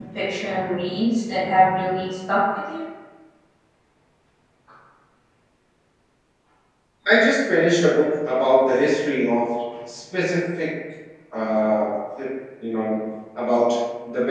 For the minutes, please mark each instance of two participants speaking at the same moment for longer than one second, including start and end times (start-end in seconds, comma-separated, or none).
none